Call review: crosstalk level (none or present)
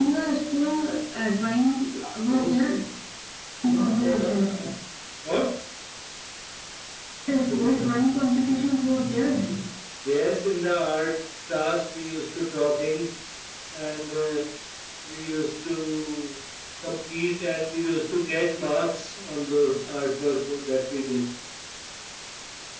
none